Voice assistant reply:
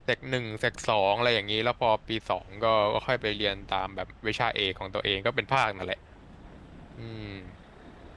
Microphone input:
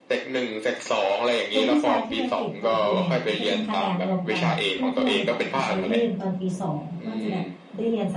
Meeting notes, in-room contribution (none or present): present